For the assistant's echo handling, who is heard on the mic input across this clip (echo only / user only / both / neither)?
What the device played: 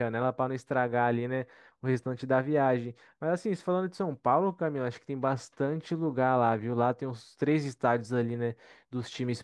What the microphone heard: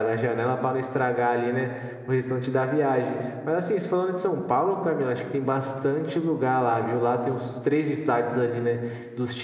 echo only